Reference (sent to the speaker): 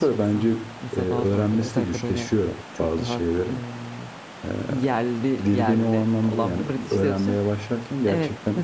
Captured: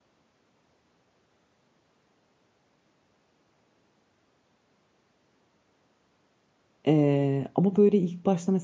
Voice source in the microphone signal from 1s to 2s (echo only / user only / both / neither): neither